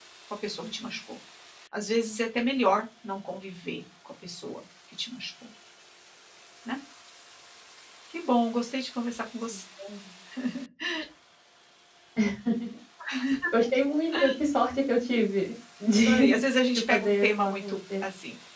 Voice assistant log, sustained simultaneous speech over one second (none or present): present